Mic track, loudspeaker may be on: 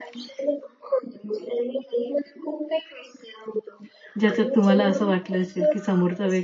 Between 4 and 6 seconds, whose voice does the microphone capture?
both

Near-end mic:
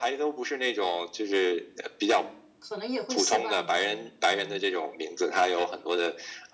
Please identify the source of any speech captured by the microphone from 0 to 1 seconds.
echo only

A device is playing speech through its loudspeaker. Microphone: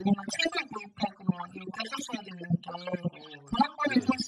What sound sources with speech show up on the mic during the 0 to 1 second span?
echo only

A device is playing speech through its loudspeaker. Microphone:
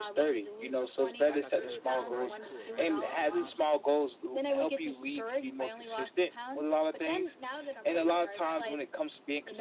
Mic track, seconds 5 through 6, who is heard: echo only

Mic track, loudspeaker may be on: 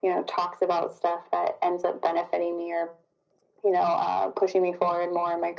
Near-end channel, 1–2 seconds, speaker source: echo only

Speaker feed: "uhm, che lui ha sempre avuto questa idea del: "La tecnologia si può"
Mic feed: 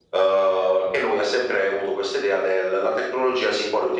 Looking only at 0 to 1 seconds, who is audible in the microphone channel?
echo only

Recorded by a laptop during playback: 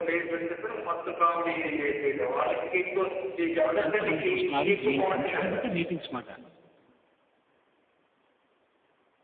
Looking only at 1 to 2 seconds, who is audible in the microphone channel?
echo only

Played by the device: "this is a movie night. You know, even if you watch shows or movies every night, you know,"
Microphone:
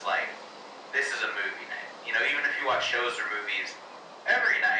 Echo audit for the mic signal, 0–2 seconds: echo only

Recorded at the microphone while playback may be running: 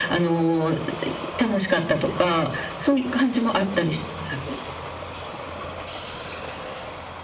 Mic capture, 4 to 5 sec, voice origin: echo only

